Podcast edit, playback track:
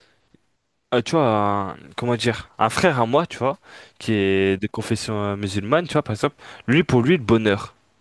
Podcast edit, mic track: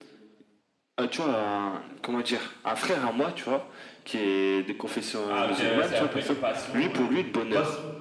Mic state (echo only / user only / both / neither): both